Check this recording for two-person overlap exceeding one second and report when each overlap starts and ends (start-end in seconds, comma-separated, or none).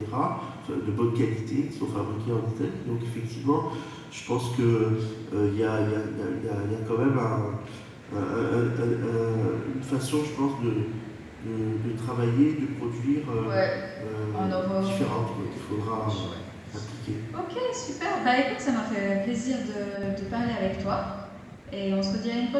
14.3-16.3